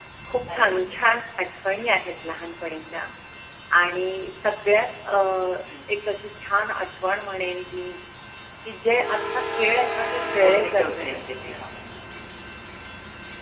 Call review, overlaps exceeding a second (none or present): present